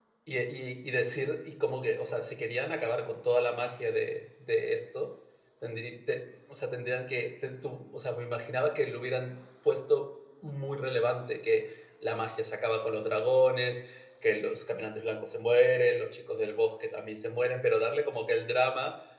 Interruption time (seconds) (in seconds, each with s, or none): none